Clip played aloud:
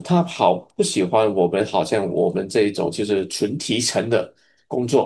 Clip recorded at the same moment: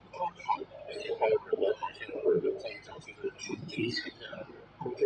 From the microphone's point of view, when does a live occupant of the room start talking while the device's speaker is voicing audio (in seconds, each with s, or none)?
none